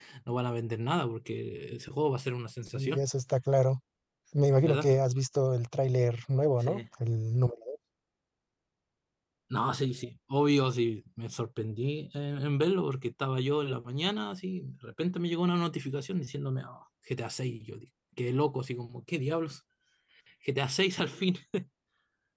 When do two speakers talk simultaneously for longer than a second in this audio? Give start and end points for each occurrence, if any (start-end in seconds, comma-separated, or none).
none